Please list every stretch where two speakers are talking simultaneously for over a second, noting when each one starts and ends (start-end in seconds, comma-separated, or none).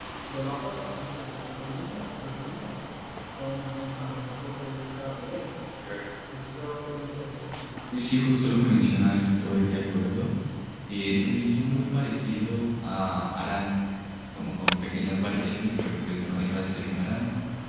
none